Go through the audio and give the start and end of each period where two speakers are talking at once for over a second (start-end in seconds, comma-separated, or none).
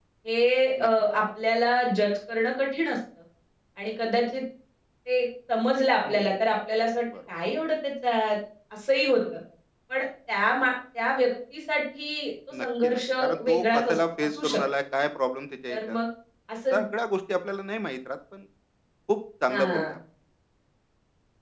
12.6-14.6